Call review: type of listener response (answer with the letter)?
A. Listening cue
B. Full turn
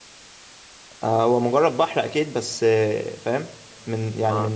A